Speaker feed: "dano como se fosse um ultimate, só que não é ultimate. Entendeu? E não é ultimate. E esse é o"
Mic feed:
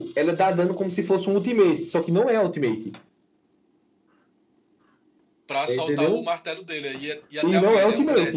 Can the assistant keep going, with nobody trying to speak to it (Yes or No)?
No